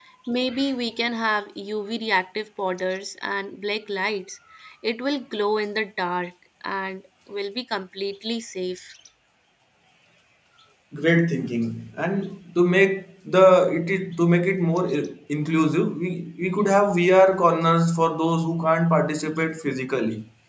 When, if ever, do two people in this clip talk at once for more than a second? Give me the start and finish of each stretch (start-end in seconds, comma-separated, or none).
none